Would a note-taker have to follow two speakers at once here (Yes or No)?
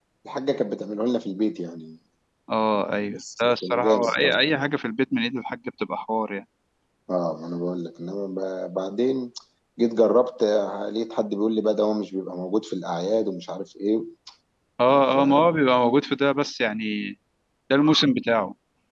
Yes